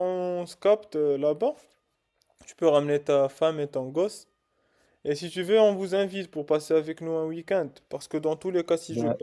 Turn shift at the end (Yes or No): No